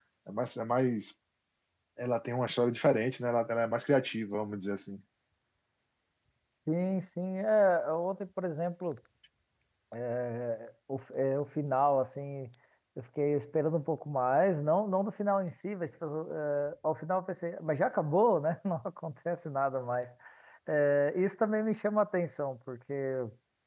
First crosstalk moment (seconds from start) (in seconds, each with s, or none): none